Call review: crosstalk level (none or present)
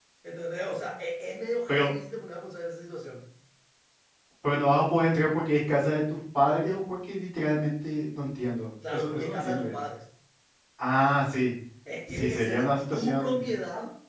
present